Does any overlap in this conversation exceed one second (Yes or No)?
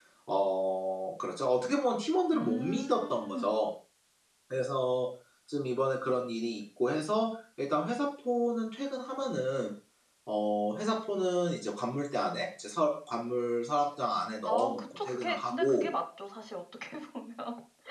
Yes